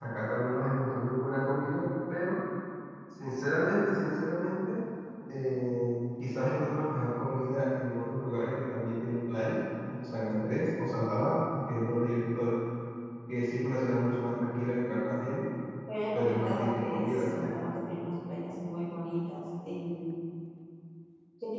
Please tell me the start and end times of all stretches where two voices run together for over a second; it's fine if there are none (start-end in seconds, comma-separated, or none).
16.1-17.6